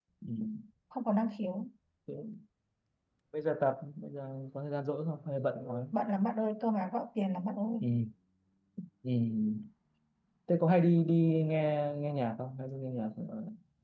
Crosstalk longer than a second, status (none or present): none